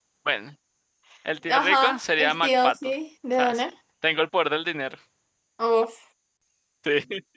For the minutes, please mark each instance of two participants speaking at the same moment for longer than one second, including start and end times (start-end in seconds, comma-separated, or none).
1.5-2.9